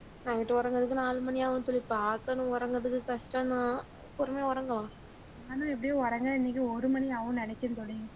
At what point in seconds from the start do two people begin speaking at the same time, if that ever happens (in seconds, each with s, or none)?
none